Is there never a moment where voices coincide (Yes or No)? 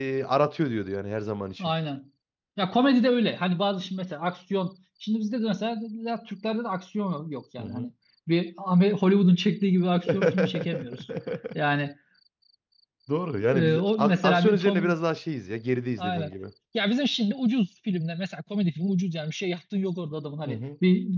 No